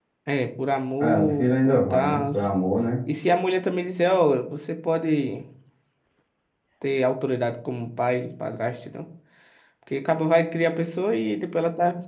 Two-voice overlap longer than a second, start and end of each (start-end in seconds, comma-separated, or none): 1.0-2.2